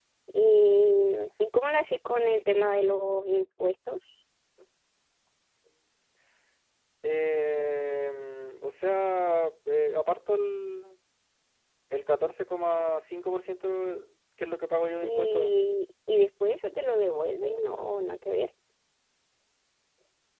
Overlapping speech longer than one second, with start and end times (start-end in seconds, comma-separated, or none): none